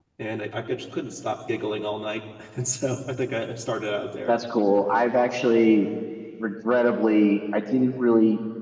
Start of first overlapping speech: none

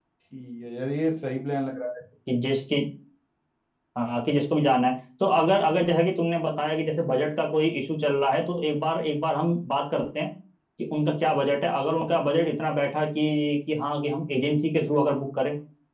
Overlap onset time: none

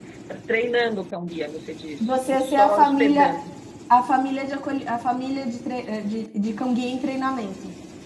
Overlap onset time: 2.0 s

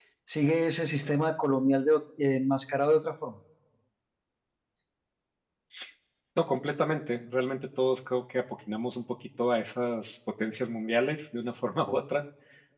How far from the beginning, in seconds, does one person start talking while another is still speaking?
none

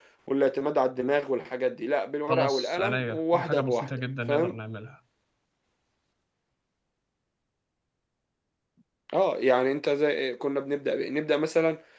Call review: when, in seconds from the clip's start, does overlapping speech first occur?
2.3 s

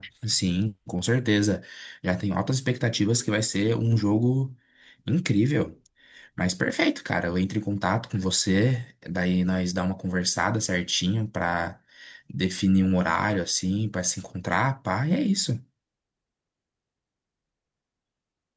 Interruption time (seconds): none

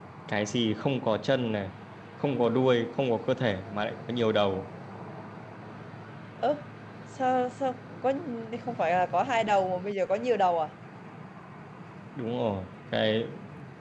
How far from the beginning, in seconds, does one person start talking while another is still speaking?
none

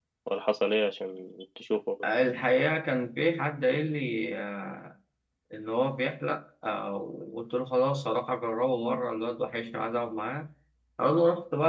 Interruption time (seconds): none

